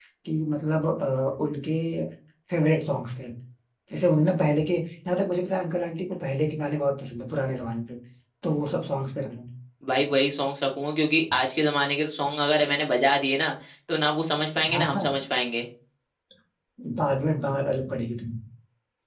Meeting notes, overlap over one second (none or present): none